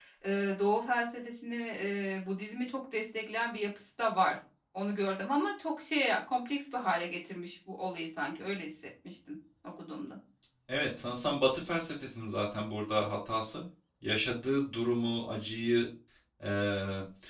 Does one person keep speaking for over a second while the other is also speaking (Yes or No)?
No